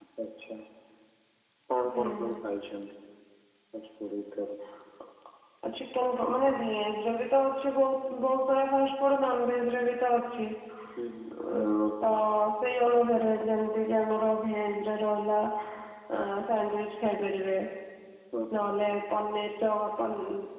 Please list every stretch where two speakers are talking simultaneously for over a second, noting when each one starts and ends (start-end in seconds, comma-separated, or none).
none